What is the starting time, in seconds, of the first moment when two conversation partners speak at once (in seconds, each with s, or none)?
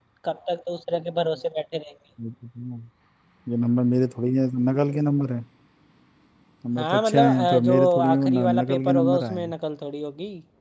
6.8 s